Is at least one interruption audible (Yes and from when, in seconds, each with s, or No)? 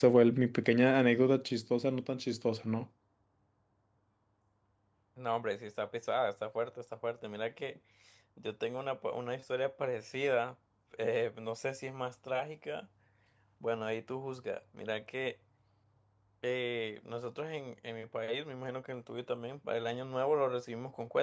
No